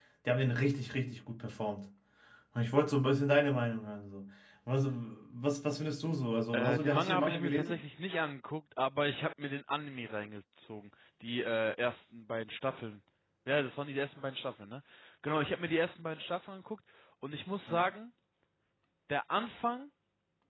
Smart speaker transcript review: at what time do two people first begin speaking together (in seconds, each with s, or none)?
6.5 s